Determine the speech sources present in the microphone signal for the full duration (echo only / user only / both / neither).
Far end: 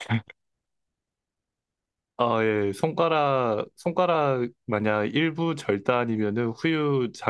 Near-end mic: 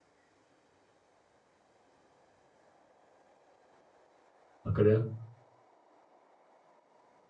user only